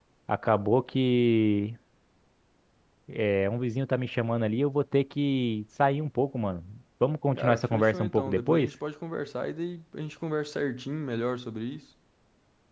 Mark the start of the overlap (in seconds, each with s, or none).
7.4 s